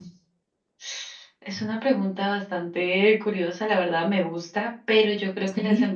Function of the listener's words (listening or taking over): listening